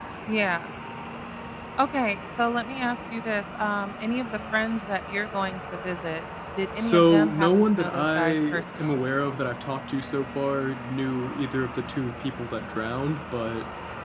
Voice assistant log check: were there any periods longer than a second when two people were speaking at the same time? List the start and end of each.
6.7-9.0

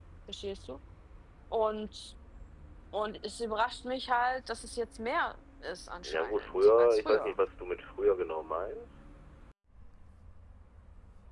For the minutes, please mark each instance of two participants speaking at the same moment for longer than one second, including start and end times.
6.0-7.4

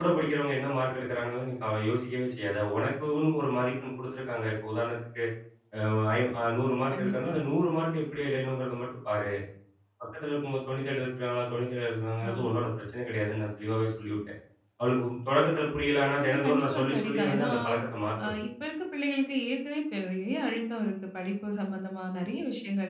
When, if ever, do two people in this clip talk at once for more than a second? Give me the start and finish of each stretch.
16.2-17.5

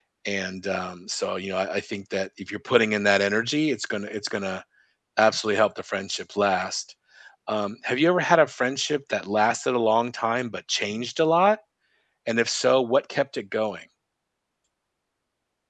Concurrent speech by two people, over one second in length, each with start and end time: none

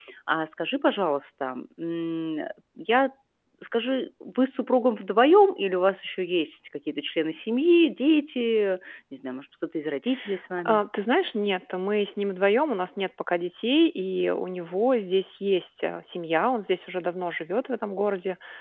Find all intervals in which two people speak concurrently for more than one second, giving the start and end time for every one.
none

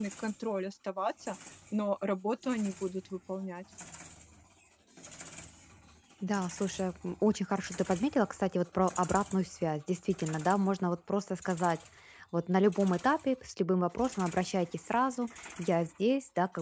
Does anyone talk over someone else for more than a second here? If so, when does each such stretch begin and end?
none

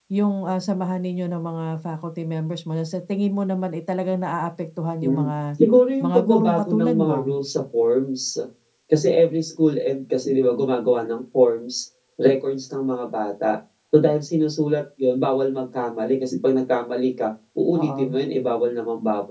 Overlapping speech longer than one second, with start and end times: 6.0-7.3

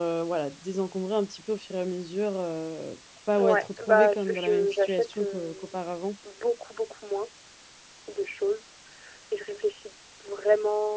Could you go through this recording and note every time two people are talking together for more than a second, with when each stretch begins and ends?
3.4-5.8

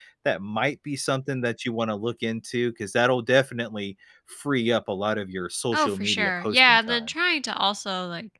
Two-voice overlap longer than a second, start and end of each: 5.7-7.0

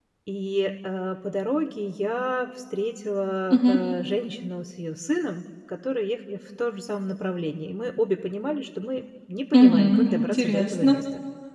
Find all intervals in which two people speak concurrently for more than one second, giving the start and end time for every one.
9.5-11.0

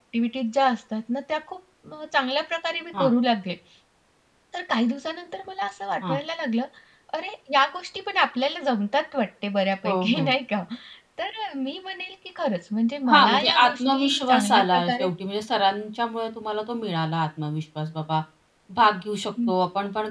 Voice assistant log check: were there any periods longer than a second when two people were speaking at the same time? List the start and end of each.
13.1-15.1

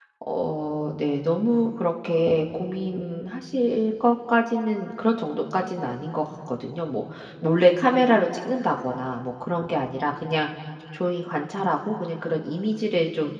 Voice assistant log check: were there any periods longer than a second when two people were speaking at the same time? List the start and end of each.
none

